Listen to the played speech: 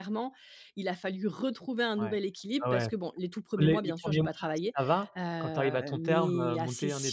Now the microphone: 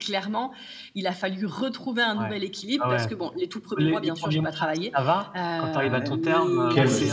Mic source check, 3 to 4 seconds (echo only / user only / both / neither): echo only